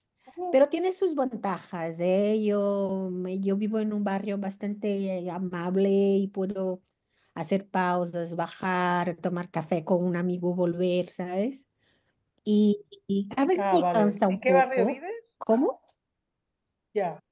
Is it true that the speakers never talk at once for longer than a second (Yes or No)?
No